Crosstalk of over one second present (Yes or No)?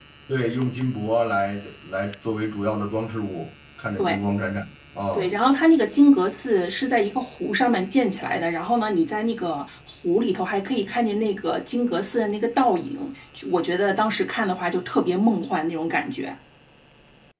No